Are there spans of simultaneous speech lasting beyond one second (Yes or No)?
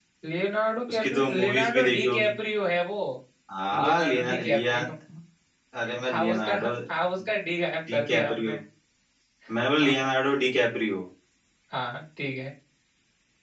Yes